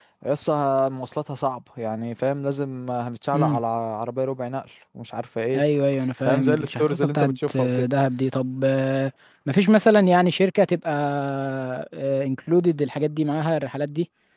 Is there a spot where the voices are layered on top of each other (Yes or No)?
Yes